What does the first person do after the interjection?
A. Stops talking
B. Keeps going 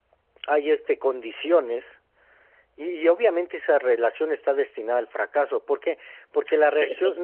B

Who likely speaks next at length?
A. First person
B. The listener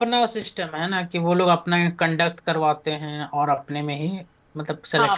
B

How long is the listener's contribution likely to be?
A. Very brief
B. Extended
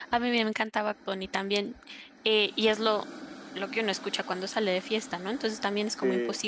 A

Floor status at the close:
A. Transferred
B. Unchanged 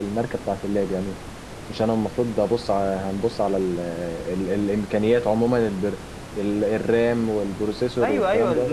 A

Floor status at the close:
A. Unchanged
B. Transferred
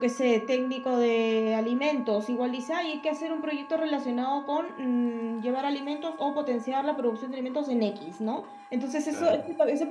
A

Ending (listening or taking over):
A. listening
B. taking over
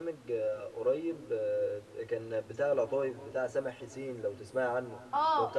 B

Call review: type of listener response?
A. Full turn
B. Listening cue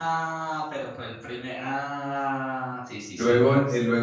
A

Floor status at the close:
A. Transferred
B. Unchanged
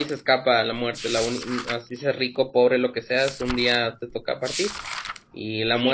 A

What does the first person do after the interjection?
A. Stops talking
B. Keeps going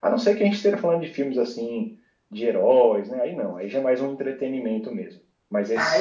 A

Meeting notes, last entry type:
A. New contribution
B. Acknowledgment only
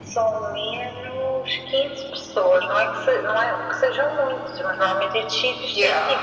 B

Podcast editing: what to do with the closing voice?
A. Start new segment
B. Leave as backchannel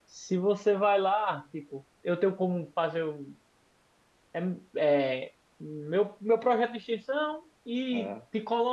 B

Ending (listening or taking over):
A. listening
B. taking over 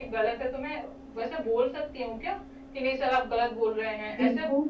B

